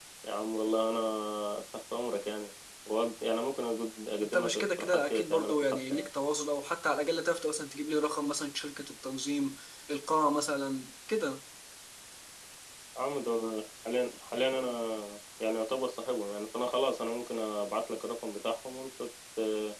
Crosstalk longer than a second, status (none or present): present